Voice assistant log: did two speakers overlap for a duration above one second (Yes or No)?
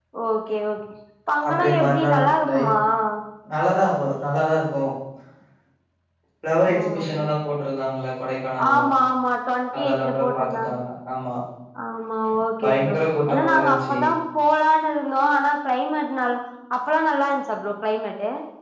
Yes